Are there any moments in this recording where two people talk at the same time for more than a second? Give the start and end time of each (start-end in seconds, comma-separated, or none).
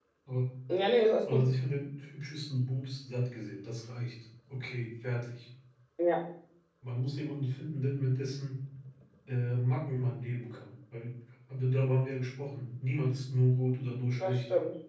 none